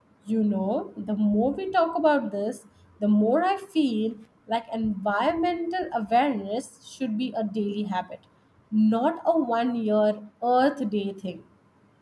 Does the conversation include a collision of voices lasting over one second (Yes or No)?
No